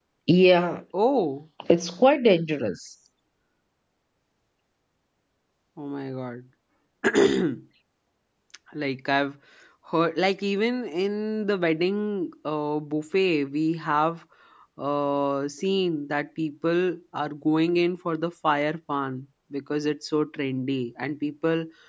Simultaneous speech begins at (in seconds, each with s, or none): none